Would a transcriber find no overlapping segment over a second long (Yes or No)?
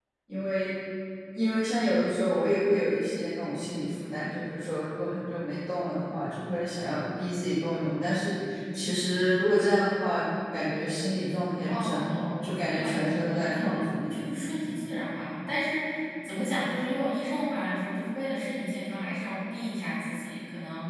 No